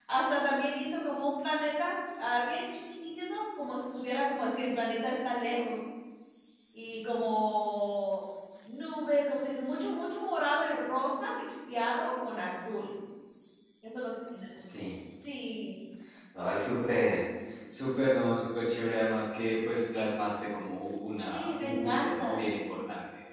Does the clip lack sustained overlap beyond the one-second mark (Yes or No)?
No